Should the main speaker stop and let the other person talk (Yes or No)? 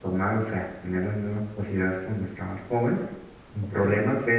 No